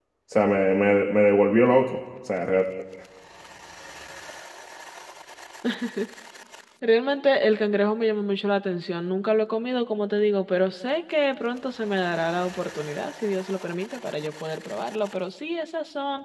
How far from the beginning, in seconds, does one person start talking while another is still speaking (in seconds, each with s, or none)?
none